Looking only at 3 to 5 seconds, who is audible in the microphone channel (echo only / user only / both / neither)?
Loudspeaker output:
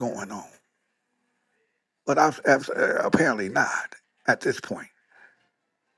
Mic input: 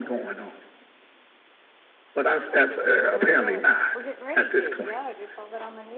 both